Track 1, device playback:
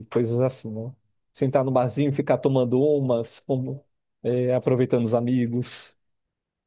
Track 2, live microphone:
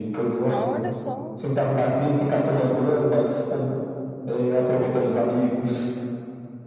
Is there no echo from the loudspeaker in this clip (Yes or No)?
No